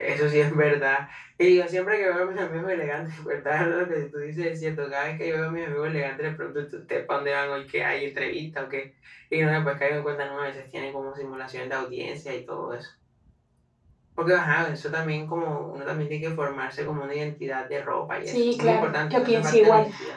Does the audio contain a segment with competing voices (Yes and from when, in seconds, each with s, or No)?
Yes, from 18.3 s